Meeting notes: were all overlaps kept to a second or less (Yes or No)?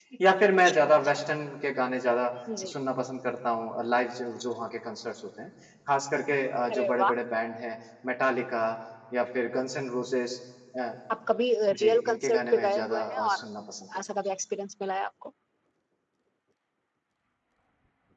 No